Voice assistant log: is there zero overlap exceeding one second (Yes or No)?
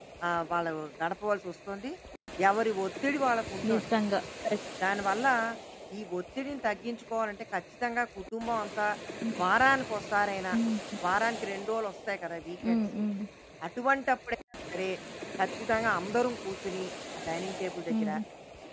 Yes